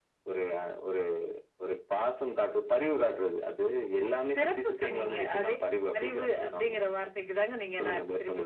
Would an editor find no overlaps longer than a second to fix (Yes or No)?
No